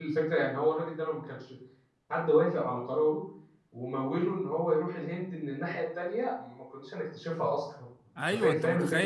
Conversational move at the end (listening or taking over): taking over